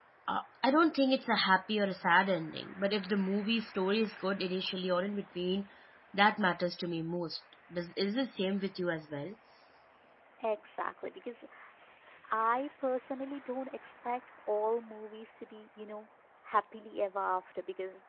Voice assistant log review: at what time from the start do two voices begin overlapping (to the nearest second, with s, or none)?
none